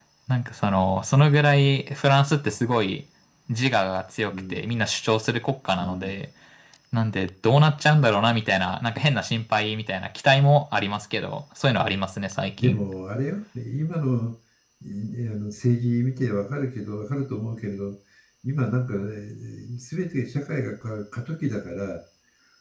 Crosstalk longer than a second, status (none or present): none